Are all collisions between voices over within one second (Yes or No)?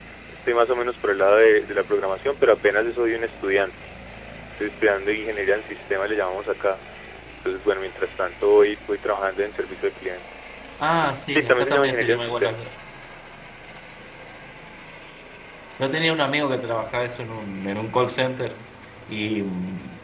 No